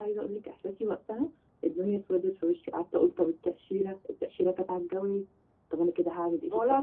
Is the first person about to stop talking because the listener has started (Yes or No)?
Yes